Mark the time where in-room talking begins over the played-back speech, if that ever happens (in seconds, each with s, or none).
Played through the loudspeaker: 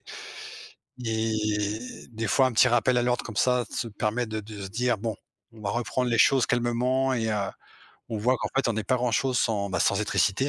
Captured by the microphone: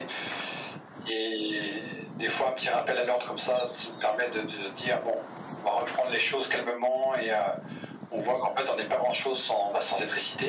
none